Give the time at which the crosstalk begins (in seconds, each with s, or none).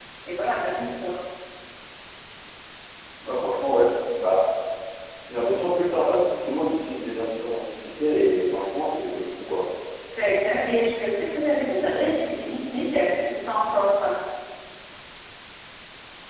none